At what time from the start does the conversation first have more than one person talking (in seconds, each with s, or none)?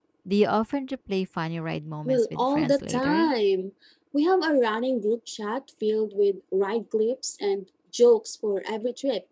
2.0 s